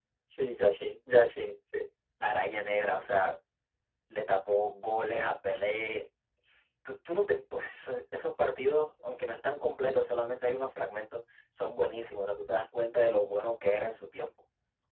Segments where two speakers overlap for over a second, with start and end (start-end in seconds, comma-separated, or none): none